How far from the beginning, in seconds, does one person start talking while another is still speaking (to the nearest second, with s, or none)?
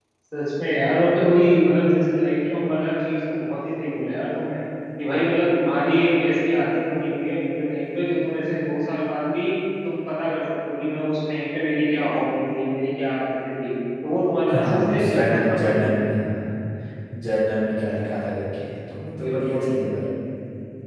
14 s